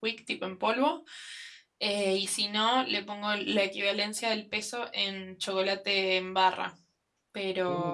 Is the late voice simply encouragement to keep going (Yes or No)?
Yes